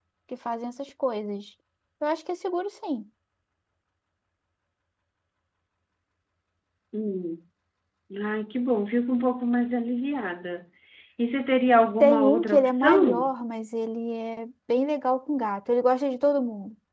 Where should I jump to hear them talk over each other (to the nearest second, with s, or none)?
12 s